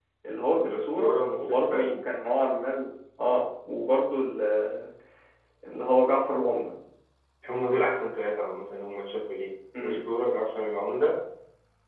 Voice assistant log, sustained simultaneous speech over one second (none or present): present